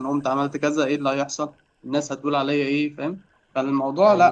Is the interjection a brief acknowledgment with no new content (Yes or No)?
No